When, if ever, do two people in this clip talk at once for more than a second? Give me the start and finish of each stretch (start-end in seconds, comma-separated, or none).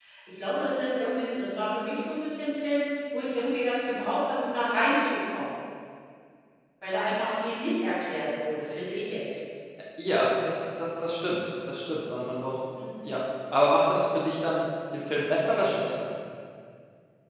none